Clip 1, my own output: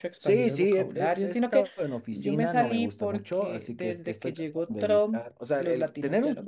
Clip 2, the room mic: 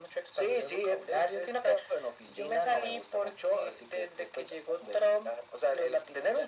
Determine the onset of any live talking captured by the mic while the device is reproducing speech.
none

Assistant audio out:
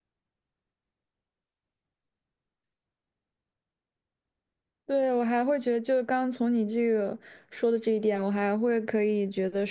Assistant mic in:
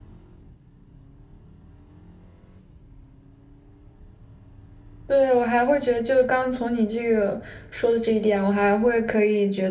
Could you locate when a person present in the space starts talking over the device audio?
none

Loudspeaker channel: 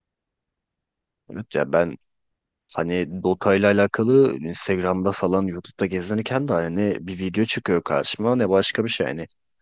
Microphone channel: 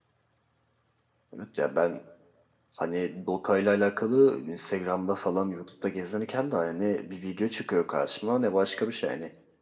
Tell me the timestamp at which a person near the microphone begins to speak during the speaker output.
none

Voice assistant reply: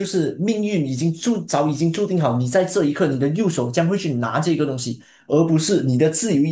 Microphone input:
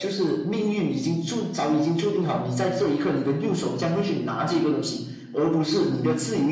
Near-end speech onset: none

